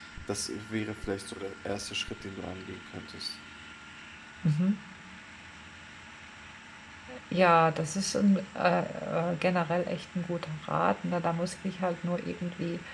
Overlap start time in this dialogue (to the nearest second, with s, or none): none